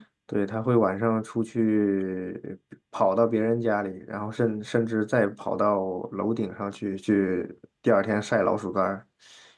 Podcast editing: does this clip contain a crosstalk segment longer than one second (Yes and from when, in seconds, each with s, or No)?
No